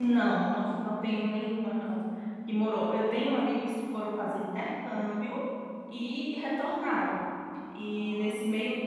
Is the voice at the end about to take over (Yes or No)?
No